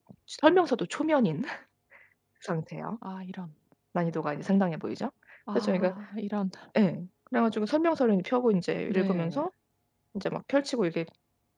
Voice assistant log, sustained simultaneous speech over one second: none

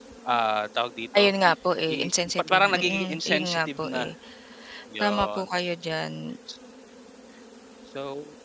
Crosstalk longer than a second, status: present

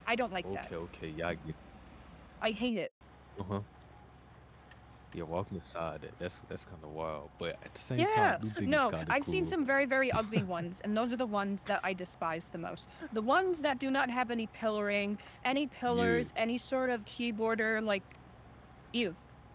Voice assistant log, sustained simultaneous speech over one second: present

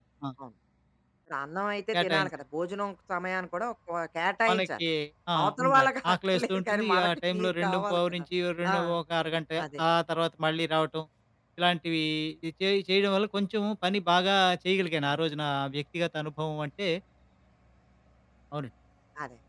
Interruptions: present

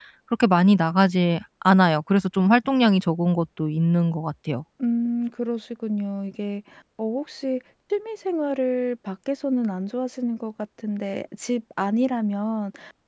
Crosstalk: none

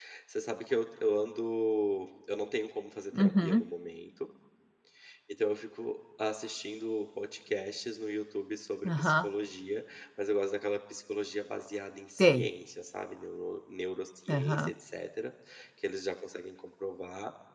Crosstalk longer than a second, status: none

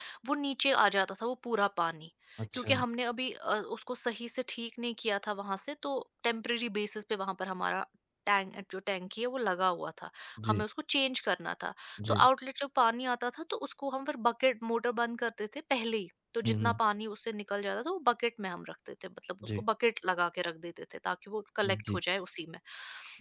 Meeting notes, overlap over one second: none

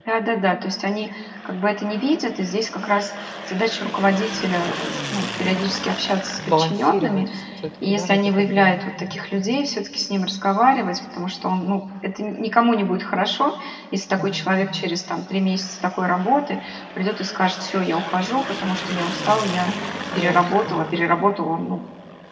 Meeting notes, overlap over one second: present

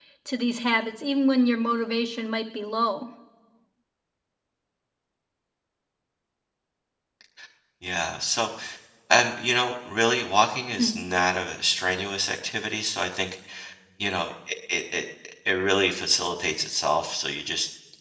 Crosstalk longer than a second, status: none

